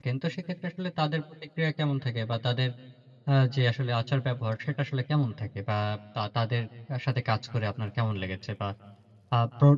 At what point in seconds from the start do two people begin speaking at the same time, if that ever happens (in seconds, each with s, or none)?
none